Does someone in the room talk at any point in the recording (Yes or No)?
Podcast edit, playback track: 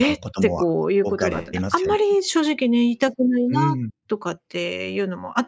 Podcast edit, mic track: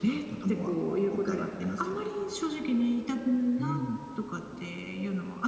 No